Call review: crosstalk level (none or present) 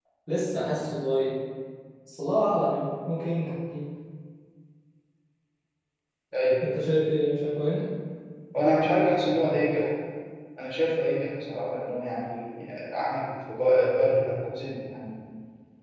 none